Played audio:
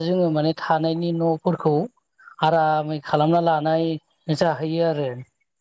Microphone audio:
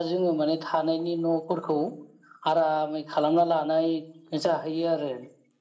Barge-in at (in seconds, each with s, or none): none